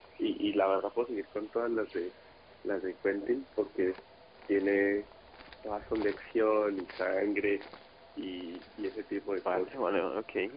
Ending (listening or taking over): taking over